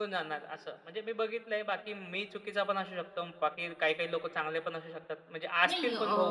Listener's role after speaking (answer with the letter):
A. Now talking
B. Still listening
A